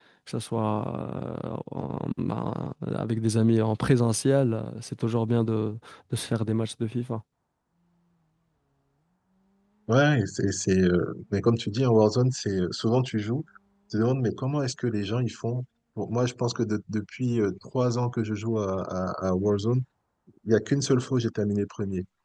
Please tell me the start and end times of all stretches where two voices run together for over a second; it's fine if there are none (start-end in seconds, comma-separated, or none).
none